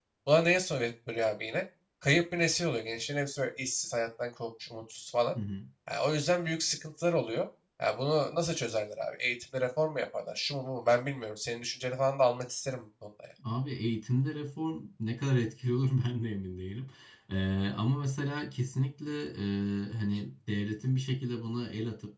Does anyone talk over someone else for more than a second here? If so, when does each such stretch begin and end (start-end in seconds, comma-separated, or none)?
none